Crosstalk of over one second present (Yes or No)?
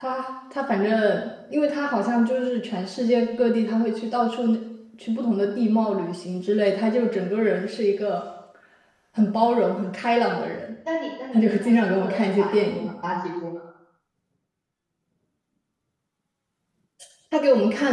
Yes